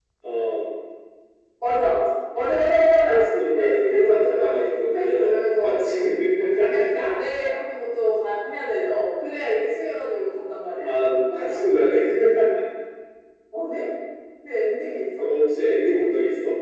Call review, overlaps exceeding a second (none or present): present